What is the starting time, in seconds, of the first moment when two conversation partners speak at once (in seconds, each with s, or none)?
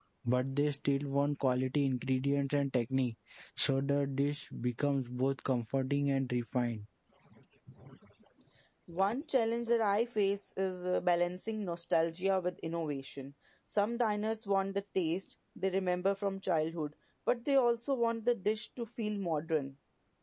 none